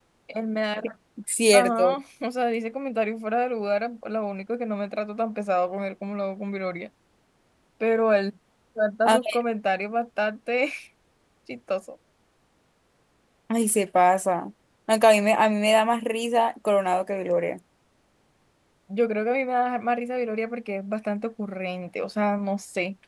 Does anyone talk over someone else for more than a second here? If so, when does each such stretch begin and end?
none

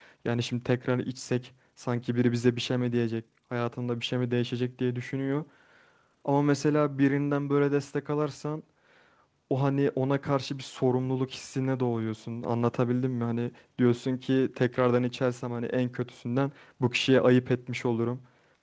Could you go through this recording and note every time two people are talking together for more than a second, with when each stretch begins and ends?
none

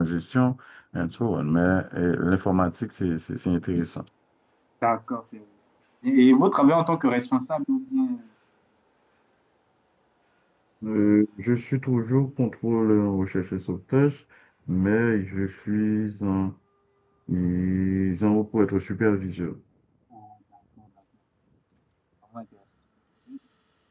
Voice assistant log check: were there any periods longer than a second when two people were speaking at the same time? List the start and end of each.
none

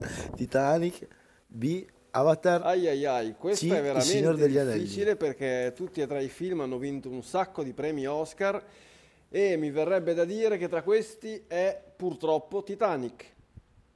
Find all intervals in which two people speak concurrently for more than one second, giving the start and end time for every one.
3.5-5.0

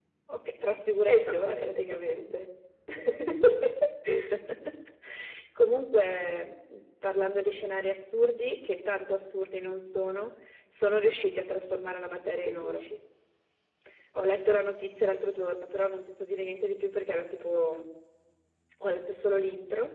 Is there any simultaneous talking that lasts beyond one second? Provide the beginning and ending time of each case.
1.1-2.4

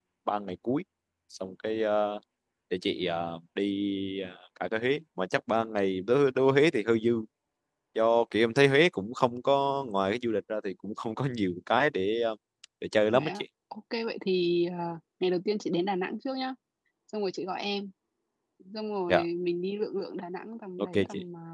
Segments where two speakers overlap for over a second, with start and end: none

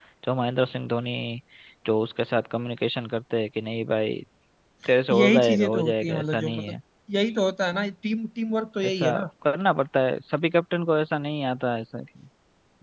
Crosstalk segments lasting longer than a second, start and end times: 5.1-6.7

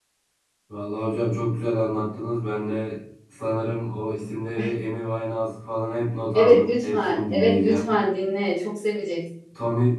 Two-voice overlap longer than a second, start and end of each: 6.3-7.9

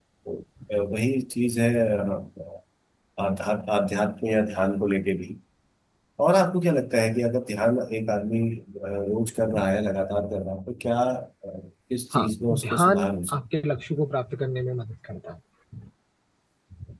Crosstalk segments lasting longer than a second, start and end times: 12.1-13.4

